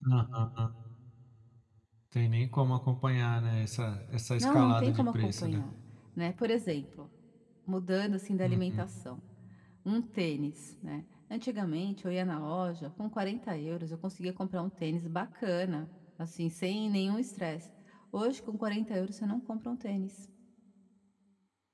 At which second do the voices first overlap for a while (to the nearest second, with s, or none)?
4 s